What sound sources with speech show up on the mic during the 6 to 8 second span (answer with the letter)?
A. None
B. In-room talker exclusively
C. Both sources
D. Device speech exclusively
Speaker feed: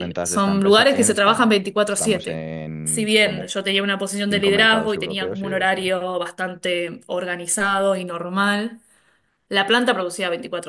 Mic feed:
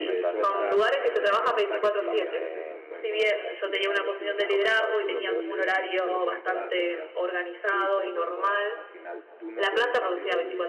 C